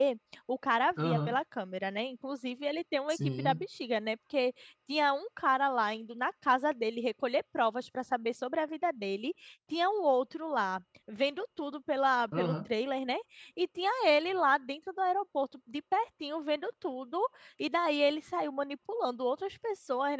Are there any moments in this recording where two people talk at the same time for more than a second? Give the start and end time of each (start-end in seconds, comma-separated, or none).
none